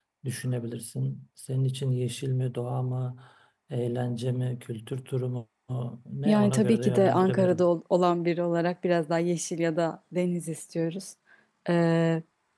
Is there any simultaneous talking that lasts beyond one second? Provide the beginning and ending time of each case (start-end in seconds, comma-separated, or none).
6.2-7.6